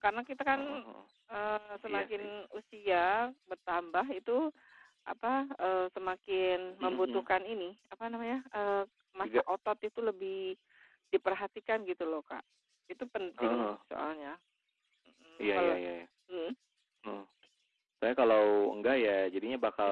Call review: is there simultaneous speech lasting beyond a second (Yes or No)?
No